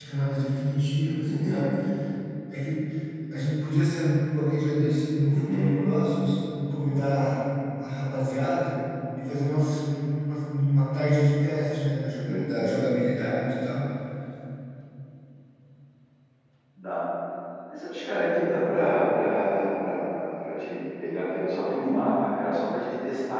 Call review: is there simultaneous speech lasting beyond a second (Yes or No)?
No